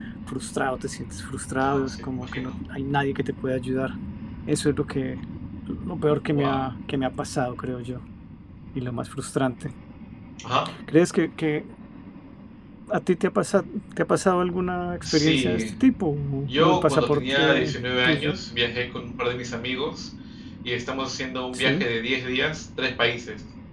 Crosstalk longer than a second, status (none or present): present